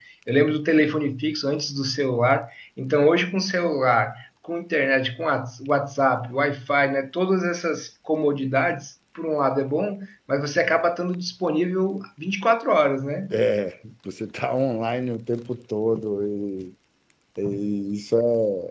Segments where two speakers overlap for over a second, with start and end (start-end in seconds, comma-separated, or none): none